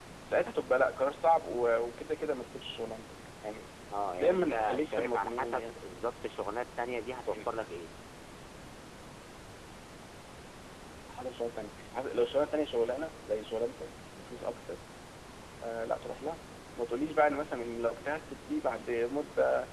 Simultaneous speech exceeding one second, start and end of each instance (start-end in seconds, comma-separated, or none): 4.2-5.6